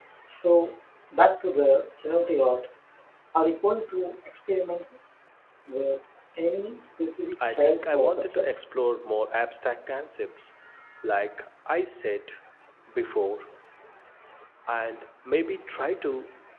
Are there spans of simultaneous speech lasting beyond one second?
Yes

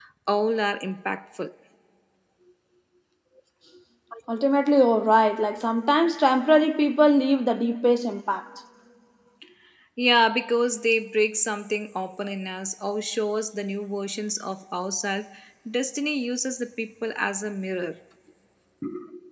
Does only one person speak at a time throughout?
Yes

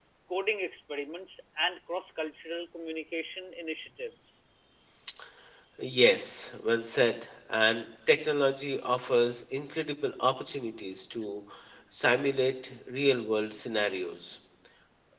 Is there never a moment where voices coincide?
Yes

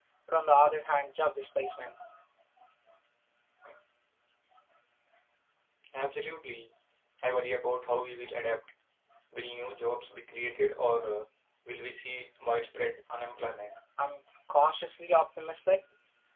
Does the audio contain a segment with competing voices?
No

